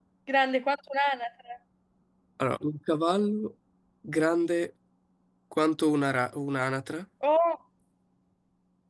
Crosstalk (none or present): none